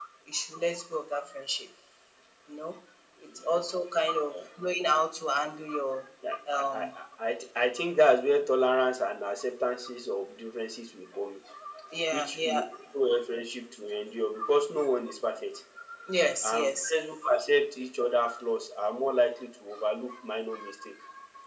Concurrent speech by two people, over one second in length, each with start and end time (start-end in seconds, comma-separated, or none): none